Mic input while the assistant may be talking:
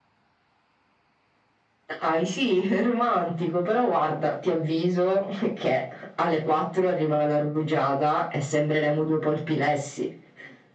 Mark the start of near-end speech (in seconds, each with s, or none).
none